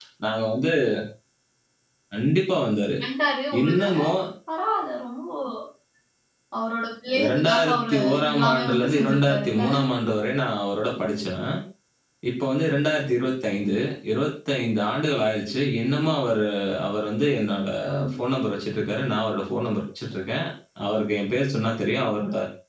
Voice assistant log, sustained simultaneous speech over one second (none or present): present